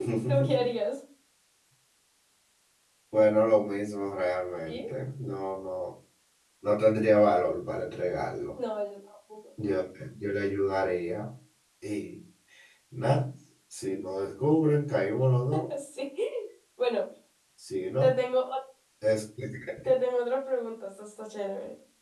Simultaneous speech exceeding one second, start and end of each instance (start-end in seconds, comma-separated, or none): none